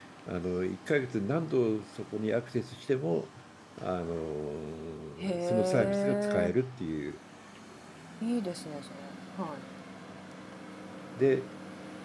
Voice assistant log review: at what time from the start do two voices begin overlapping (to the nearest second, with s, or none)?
5 s